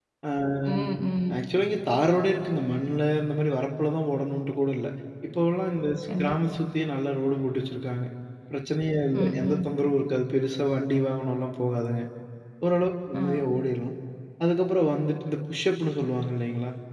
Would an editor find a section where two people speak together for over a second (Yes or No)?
No